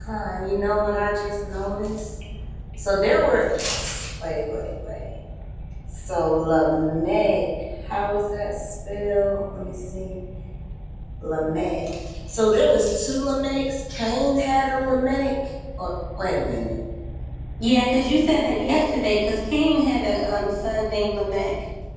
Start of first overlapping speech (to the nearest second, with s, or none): none